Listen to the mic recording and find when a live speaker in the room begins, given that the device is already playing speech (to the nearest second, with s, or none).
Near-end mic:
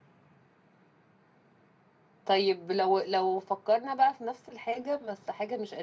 2 s